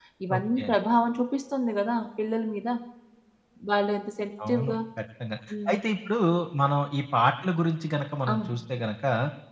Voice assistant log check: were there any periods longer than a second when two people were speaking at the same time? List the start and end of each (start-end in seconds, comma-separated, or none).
none